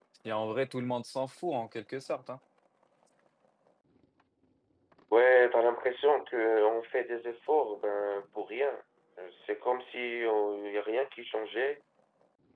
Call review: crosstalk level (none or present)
none